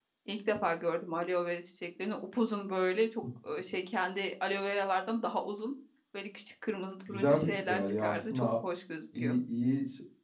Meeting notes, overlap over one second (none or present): present